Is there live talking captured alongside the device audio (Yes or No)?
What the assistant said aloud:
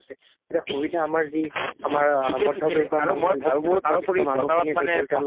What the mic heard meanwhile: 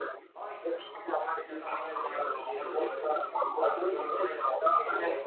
Yes